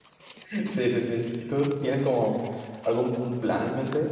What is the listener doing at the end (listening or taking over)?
taking over